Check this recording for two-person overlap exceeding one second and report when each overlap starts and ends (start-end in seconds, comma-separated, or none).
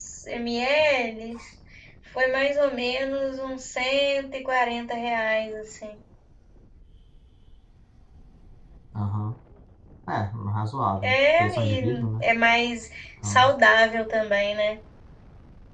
11.0-12.2